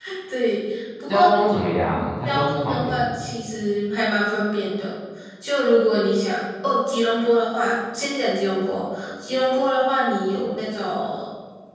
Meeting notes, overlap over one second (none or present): present